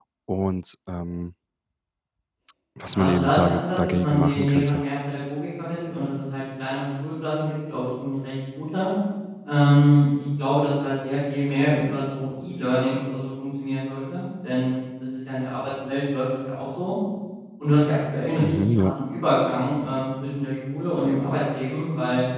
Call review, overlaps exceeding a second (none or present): present